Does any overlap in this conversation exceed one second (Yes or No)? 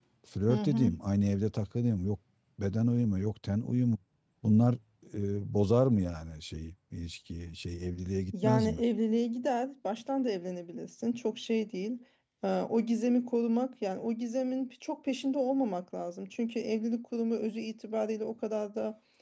No